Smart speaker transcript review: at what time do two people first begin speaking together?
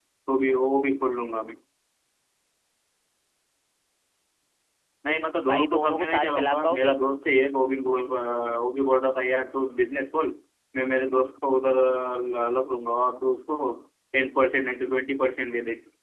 5.4 s

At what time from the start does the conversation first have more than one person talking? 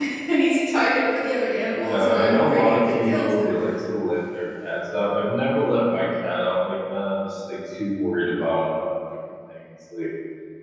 1.8 s

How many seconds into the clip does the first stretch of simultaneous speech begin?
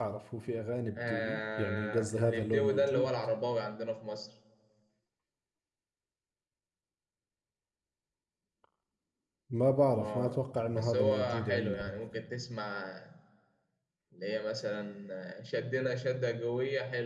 1.1 s

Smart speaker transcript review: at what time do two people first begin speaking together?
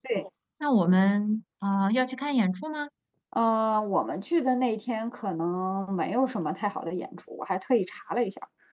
none

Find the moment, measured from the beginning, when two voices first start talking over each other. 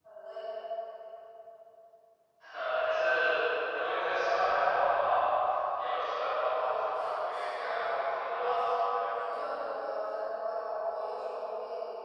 6.5 s

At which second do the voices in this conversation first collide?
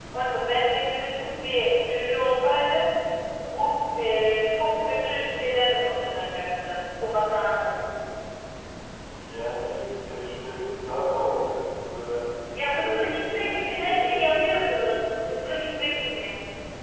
12.8 s

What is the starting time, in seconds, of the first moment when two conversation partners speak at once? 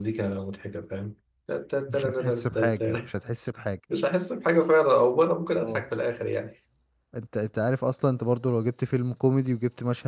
1.9 s

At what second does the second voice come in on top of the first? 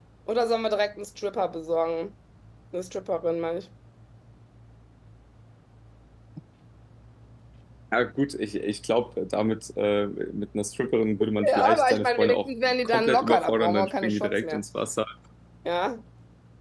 11.4 s

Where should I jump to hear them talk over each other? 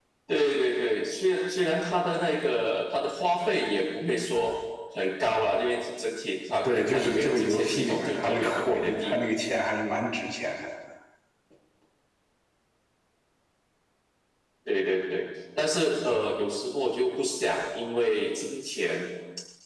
6.6 s

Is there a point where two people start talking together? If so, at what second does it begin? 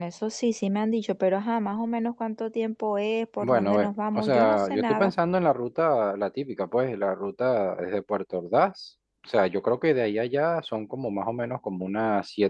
3.4 s

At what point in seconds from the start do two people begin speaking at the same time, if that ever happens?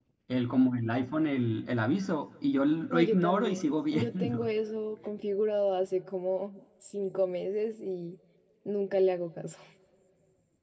2.9 s

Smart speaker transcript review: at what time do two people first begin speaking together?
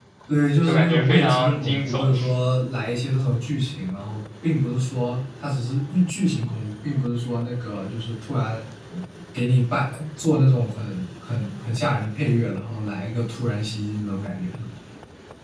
0.6 s

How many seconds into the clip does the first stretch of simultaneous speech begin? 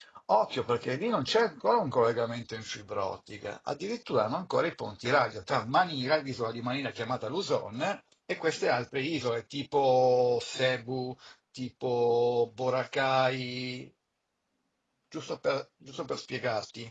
none

